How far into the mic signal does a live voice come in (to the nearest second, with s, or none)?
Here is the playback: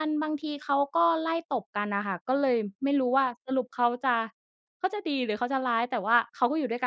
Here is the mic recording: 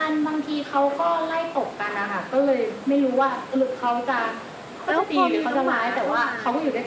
5 s